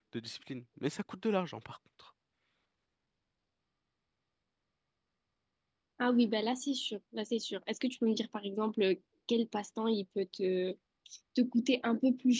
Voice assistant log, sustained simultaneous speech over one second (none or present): none